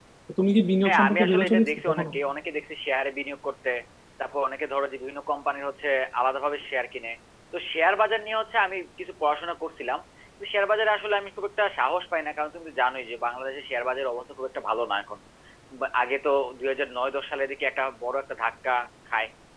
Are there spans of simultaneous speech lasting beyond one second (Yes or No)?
Yes